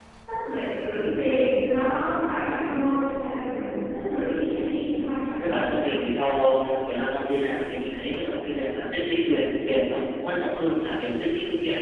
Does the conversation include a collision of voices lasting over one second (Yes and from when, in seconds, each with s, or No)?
No